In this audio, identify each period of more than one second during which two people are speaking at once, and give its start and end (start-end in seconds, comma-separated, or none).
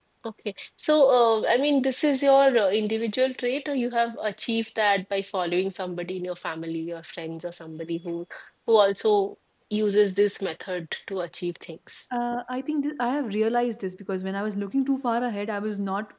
none